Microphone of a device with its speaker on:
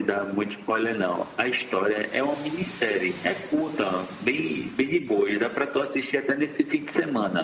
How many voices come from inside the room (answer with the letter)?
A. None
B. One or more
A